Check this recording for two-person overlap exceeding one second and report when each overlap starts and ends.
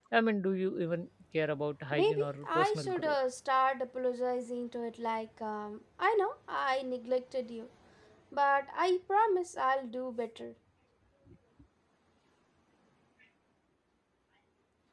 1.9-3.1

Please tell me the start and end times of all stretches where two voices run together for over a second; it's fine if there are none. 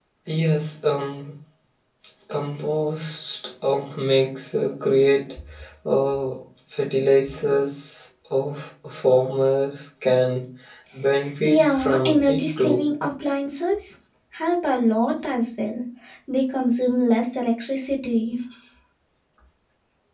11.4-12.8

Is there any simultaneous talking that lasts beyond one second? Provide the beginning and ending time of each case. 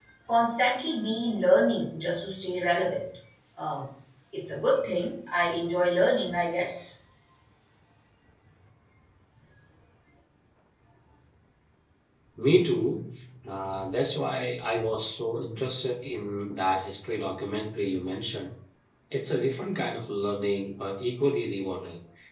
none

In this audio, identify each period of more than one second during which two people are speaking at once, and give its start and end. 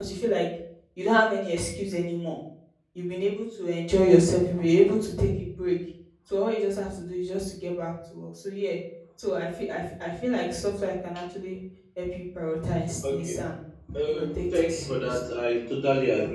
14.1-15.3

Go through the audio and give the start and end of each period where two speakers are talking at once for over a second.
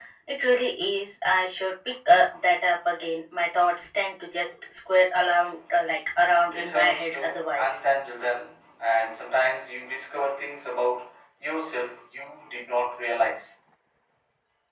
6.5-7.8

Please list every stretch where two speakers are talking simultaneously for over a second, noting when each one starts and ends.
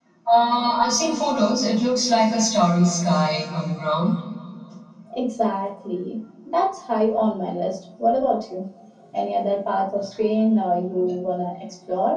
none

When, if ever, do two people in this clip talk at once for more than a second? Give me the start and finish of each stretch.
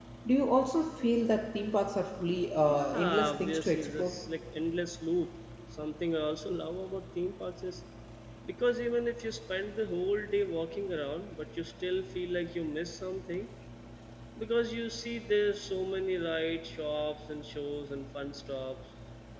2.6-4.1

